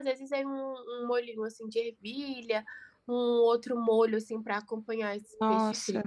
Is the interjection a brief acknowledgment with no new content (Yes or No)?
No